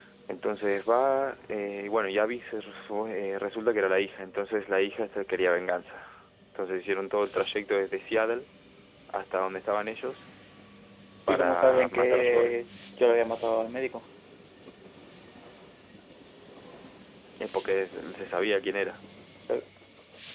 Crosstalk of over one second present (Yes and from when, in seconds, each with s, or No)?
Yes, from 11.3 s